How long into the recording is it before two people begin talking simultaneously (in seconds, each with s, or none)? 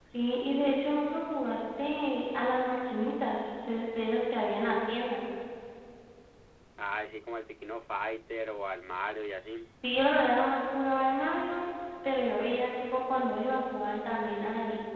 none